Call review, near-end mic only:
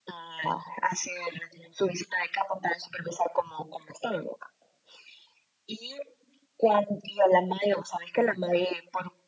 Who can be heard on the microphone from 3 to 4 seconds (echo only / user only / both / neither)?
echo only